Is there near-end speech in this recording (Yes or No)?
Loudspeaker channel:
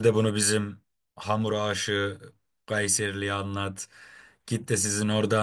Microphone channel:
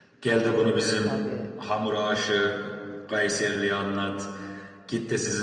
Yes